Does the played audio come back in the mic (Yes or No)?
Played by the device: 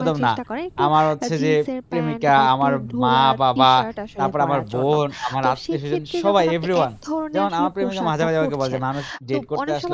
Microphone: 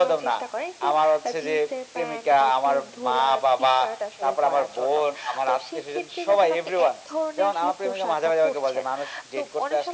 Yes